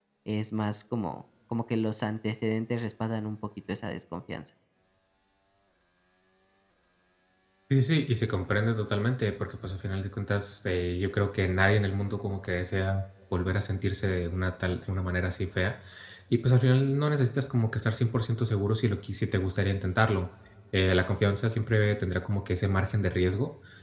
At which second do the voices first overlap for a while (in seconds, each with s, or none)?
none